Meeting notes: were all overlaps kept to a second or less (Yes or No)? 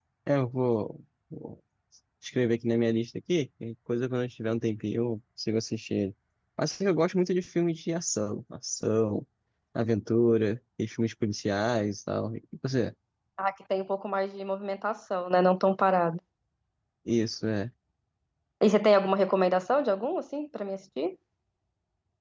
Yes